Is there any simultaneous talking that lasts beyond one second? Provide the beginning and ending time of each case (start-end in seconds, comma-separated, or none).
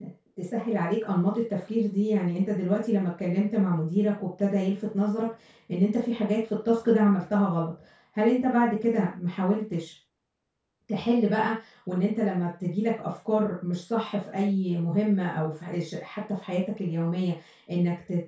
none